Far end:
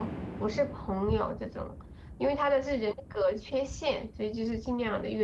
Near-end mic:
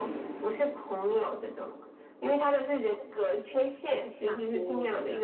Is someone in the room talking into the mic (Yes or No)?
Yes